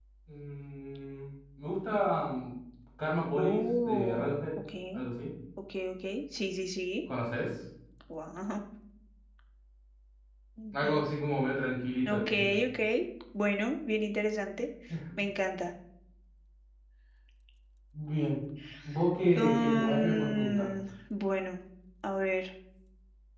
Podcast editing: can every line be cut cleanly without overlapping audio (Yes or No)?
No